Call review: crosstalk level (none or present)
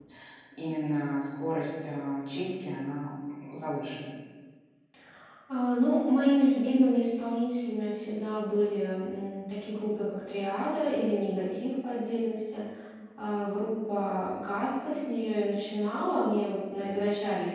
none